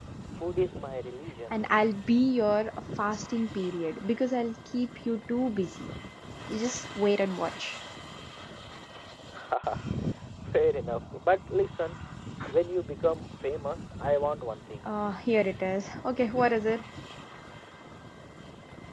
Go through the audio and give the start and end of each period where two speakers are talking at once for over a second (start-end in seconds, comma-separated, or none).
none